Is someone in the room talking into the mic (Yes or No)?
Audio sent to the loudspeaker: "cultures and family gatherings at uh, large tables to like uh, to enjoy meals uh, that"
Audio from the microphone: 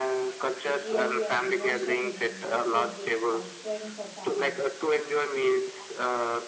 Yes